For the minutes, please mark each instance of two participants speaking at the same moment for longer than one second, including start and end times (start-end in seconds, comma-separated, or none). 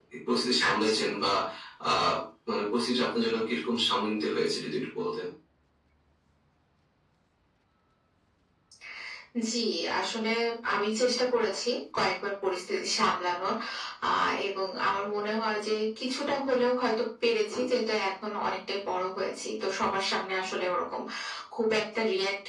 none